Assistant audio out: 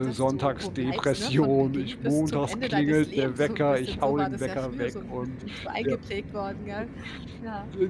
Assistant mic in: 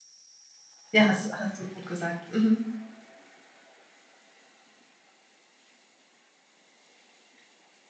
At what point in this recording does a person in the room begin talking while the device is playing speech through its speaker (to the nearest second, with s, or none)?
1 s